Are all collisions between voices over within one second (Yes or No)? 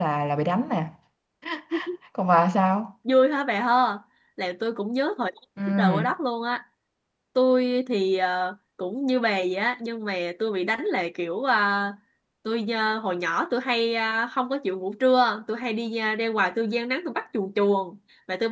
Yes